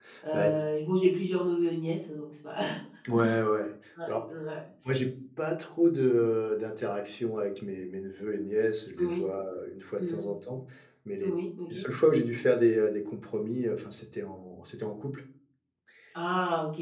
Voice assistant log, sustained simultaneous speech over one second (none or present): none